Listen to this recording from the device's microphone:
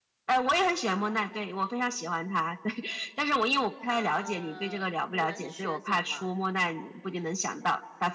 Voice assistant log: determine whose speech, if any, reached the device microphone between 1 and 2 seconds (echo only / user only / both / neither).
echo only